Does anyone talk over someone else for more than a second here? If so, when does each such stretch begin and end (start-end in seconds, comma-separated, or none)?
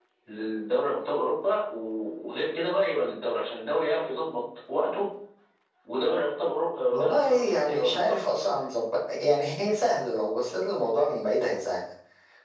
6.9-8.4